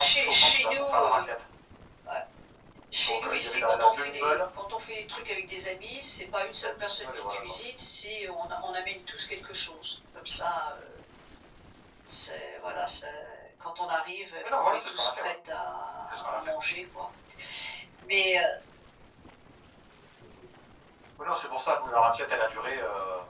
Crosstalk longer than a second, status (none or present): present